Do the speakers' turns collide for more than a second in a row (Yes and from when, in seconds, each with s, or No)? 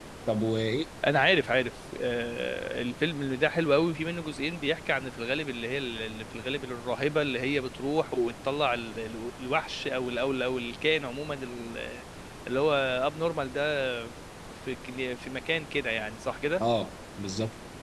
No